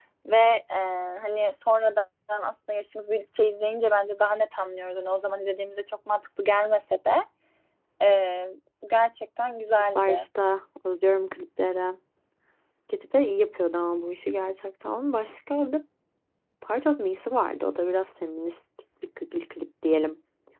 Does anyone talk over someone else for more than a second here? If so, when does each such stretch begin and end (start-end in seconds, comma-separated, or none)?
none